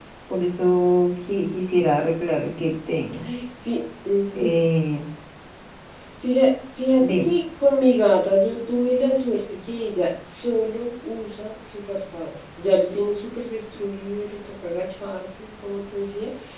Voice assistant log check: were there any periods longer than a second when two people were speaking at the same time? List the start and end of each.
none

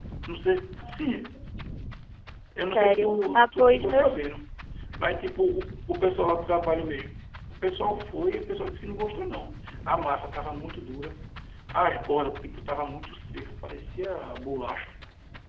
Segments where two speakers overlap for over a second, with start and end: 2.6-4.2

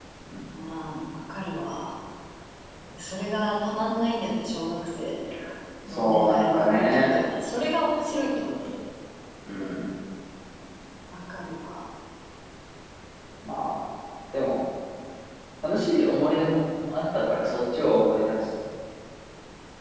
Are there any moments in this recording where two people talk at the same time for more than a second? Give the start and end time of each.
5.9-7.1

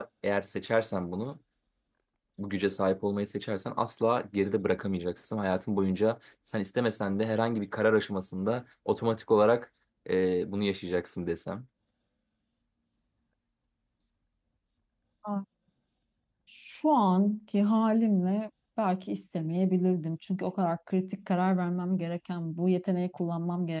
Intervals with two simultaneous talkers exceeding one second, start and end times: none

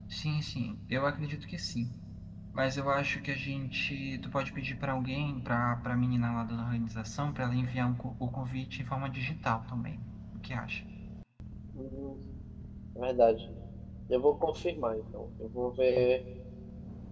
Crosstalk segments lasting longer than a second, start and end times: none

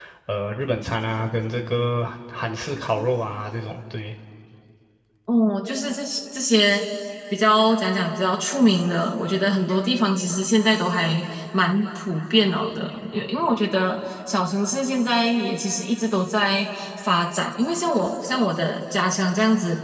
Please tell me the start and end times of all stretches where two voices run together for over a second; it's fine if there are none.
none

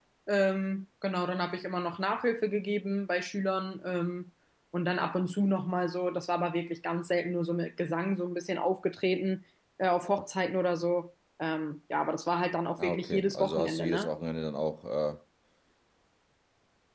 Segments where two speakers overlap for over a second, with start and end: 12.8-14.1

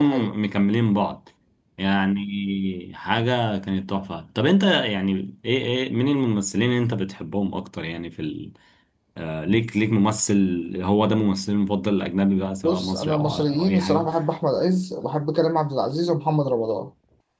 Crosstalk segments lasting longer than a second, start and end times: 12.6-14.1

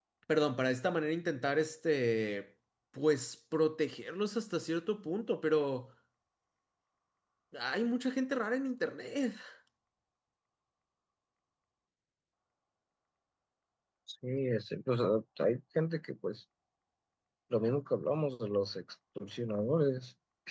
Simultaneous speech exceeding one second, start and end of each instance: none

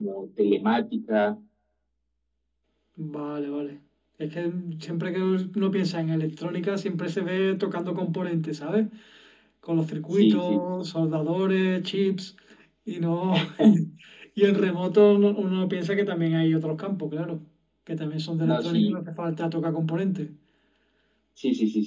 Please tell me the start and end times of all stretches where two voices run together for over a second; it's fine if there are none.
none

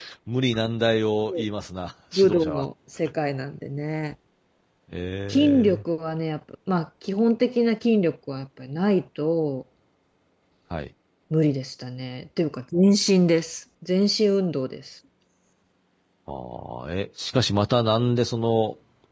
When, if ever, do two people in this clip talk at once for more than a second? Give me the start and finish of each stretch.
none

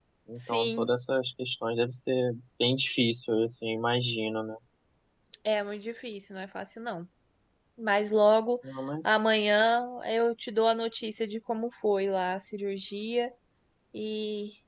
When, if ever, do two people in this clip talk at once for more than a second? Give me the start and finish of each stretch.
none

